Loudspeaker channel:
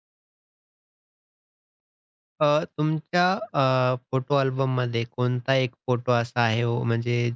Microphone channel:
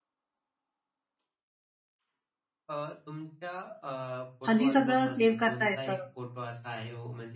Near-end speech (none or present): present